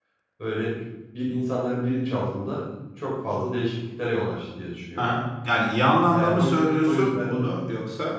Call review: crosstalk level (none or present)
present